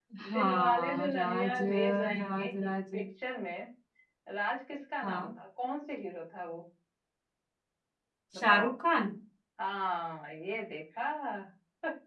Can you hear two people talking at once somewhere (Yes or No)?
Yes